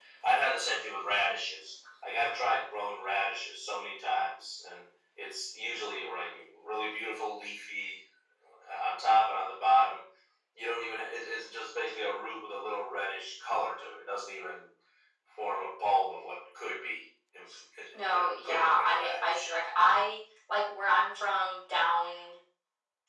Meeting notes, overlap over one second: present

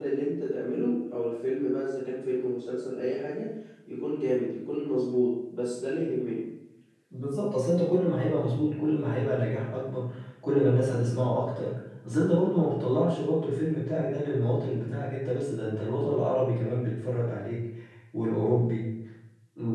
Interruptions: none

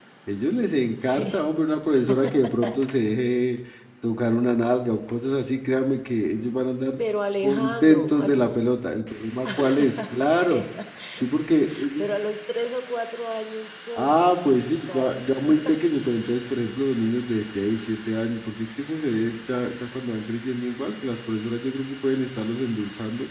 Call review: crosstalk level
present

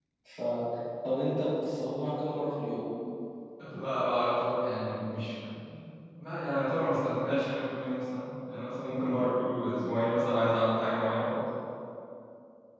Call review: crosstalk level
none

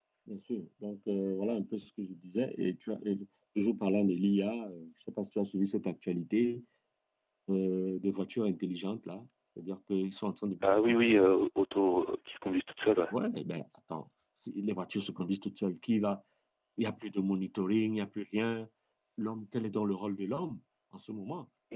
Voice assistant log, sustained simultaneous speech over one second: none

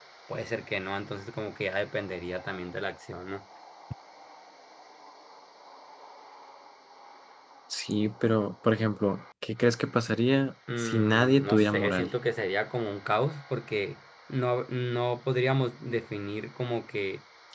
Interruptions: present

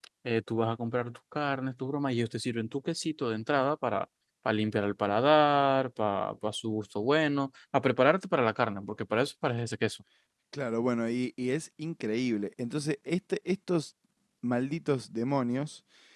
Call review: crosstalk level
none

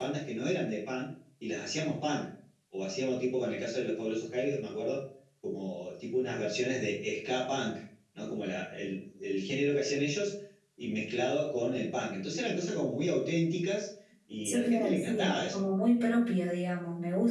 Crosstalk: present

